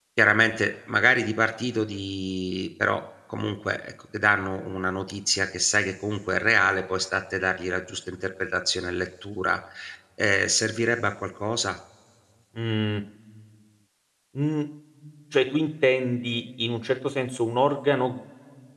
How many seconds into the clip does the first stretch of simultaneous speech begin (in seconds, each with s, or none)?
none